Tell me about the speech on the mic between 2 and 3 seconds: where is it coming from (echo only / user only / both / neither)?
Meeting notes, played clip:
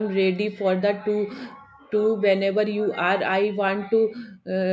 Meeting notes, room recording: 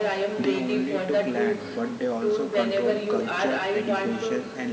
both